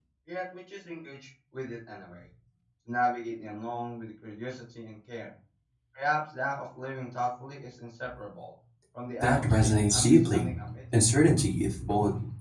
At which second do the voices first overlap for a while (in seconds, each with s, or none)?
9.2 s